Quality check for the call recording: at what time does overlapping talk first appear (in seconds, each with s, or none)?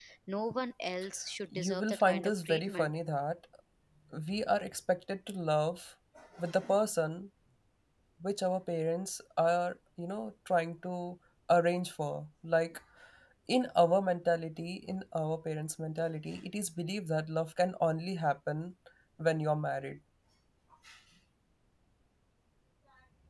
1.5 s